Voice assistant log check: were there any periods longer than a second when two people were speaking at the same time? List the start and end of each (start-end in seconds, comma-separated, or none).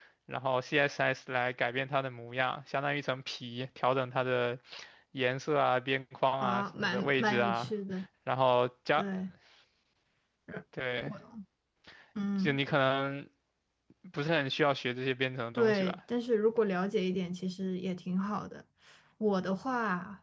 6.4-7.7